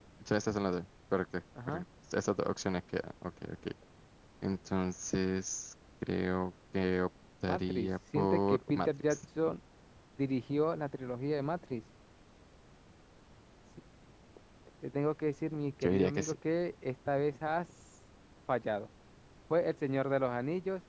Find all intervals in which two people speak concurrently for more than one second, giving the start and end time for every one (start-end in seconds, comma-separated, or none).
7.5-9.2